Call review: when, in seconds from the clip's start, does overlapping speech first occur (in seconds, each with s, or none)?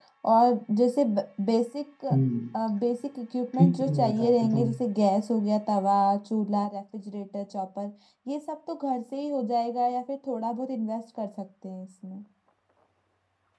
3.5 s